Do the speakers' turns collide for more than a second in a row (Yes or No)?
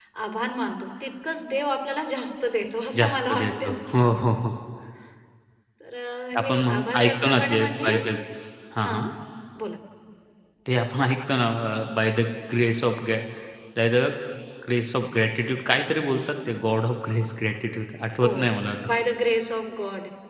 Yes